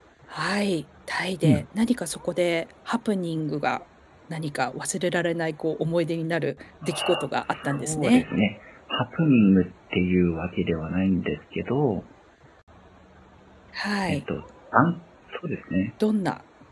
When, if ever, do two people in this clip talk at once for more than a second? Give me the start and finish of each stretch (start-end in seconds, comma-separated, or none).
6.8-8.2